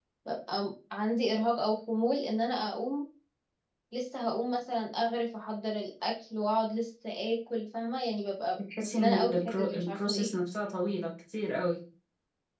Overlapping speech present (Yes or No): Yes